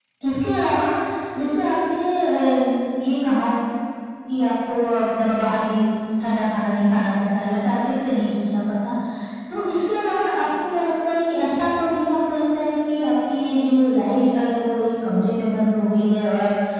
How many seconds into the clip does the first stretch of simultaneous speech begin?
none

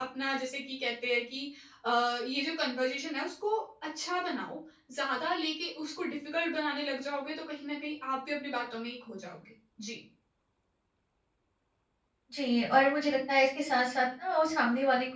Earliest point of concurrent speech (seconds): none

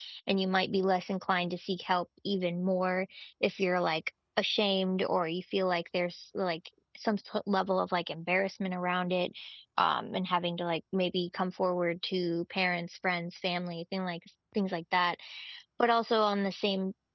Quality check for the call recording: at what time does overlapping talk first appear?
none

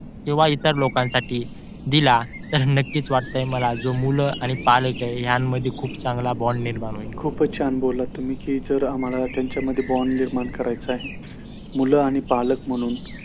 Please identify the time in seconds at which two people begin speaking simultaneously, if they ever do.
none

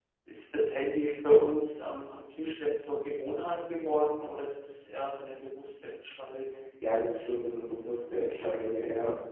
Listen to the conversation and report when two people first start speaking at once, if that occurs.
none

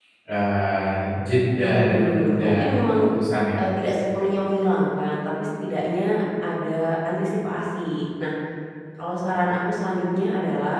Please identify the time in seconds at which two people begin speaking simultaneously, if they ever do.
1.6 s

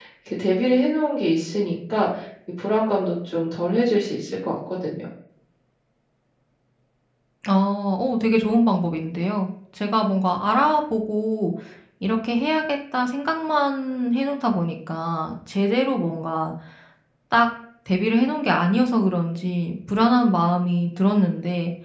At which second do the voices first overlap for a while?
none

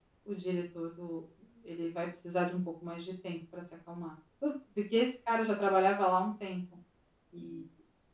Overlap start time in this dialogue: none

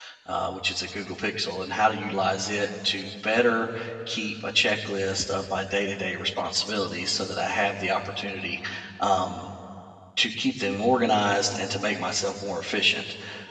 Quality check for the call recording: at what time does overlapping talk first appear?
none

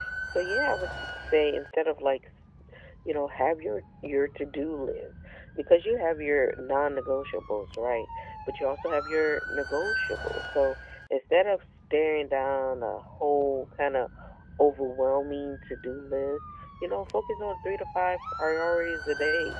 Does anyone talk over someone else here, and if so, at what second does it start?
none

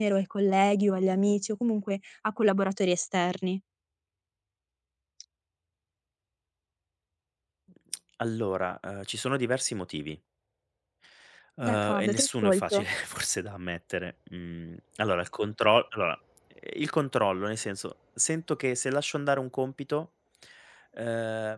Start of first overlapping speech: 11.6 s

